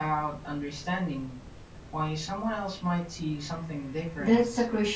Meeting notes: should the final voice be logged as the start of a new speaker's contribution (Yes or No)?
Yes